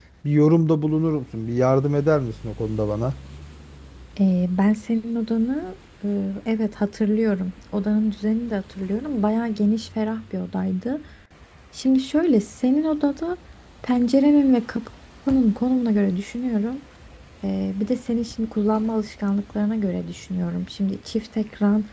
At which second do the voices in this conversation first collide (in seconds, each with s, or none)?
none